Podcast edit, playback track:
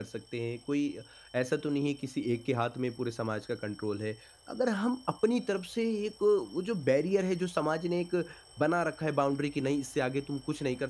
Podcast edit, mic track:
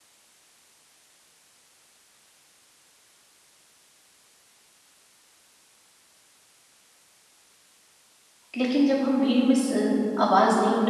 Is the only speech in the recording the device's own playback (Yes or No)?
No